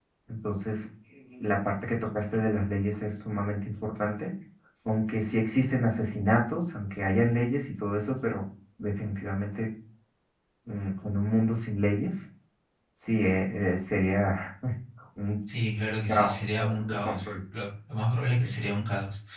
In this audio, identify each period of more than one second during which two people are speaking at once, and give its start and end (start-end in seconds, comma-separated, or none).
16.1-17.3